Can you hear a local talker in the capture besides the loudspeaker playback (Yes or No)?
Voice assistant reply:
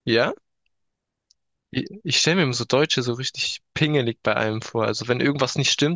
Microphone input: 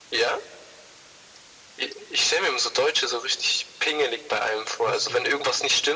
Yes